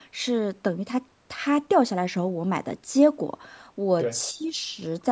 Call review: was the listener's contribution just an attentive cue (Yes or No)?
Yes